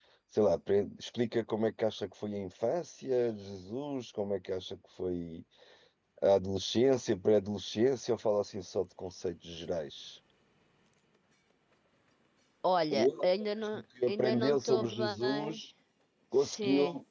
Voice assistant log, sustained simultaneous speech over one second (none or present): present